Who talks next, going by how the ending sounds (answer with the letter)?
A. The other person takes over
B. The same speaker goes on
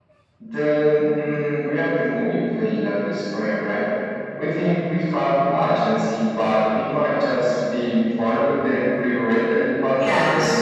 A